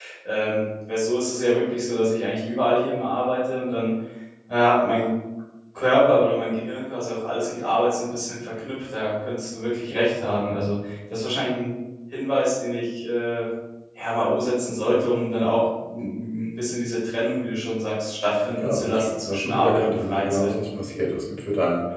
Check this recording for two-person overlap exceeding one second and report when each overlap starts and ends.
18.6-20.5

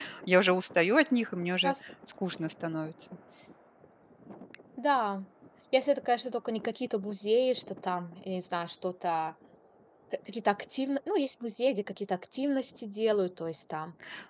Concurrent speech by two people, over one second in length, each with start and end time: none

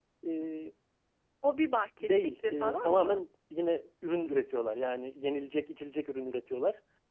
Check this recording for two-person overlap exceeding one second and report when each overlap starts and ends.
2.0-3.2

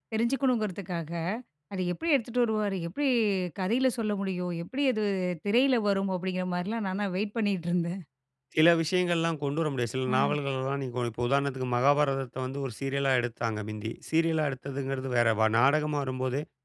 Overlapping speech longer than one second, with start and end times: none

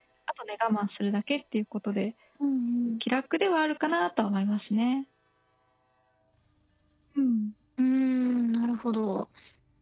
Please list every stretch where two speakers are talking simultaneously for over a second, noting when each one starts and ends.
none

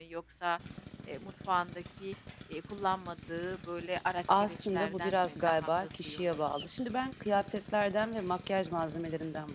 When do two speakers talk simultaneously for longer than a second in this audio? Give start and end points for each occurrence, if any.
4.4-6.7

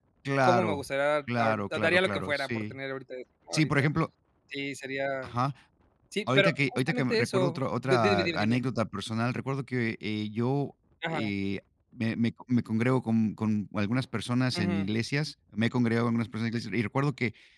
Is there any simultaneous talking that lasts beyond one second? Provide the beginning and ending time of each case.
1.4-2.8, 6.3-8.6

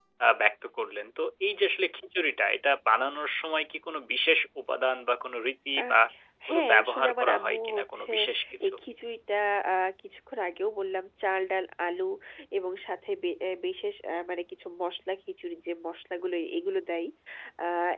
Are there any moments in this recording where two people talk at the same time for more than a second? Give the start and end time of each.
6.5-8.1

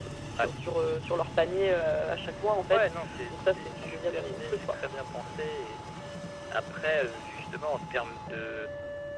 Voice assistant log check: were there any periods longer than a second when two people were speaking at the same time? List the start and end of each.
3.3-4.8

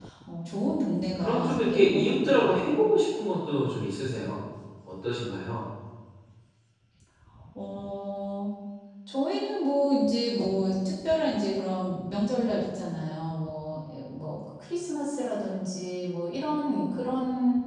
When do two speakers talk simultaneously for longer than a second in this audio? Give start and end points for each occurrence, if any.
1.2-2.6

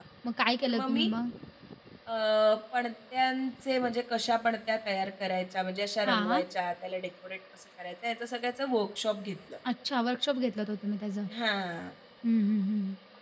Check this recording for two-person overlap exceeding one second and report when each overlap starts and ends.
none

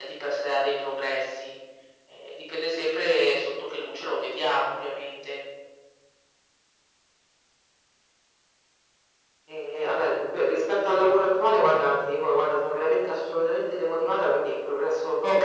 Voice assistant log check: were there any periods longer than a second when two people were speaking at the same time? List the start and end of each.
none

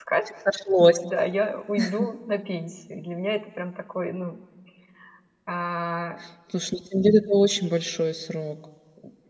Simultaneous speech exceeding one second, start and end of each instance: none

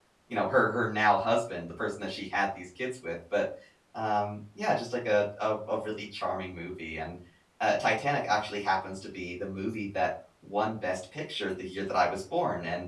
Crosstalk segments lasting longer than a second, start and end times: none

